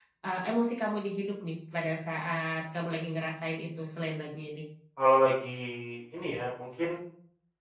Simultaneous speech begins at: none

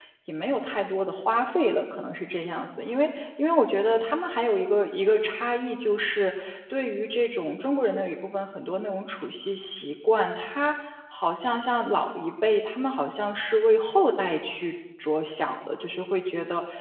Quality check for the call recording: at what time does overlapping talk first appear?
none

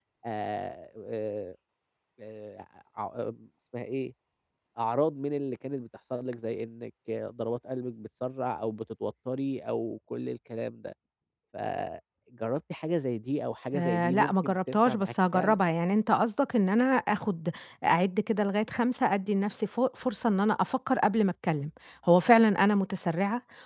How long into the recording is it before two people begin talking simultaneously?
13.7 s

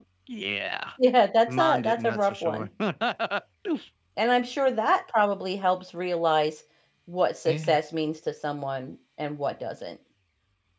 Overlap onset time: 1.5 s

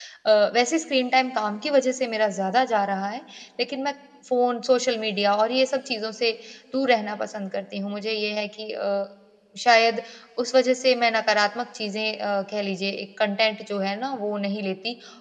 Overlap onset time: none

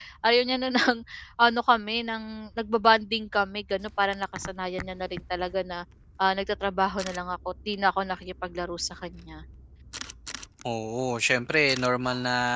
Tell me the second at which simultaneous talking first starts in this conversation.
none

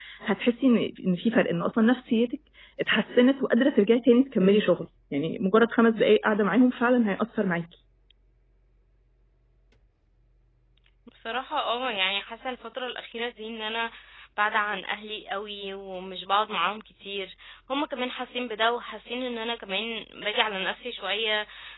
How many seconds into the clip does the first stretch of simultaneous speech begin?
none

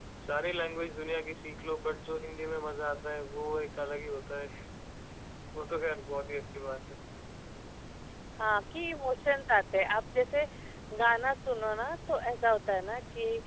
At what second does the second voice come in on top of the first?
none

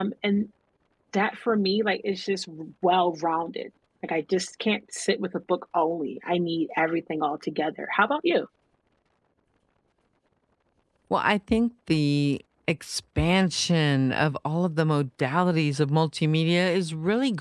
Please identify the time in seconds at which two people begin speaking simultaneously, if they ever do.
none

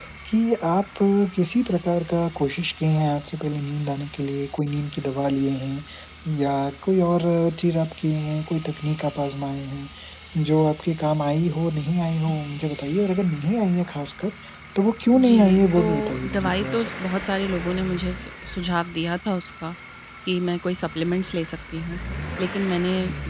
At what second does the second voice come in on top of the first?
15.1 s

